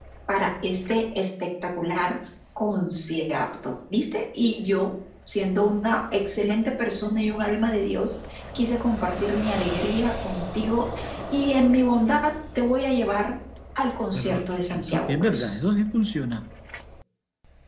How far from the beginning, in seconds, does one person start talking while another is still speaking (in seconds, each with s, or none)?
14.1 s